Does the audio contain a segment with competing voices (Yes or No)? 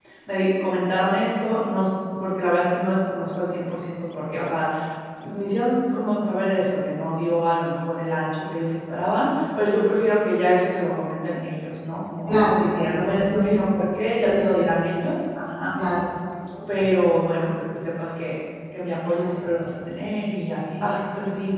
Yes